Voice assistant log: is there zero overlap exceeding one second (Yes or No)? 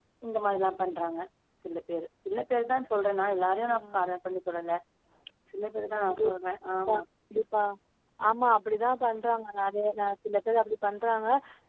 Yes